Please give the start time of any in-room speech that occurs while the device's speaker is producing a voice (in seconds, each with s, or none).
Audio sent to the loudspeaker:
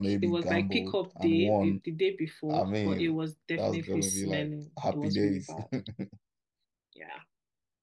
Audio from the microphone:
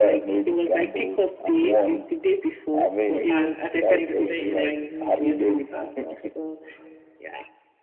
3.3 s